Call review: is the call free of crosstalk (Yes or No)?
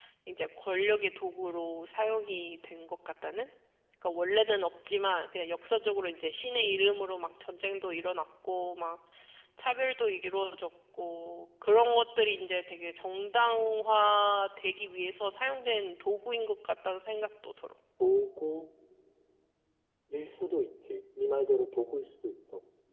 Yes